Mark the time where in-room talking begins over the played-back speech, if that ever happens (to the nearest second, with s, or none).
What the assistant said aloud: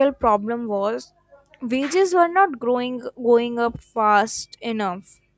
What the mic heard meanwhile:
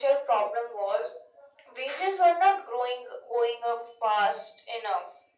none